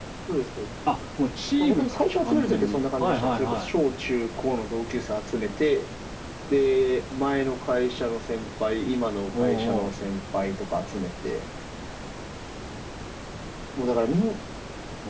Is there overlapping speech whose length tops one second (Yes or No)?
Yes